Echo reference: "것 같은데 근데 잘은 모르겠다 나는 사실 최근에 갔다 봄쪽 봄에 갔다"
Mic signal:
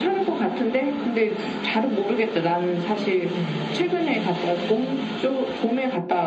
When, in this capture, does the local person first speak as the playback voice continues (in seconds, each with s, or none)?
3.2 s